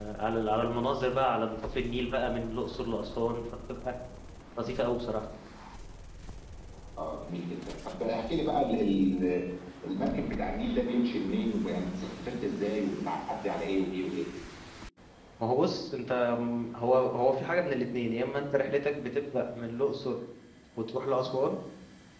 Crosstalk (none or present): none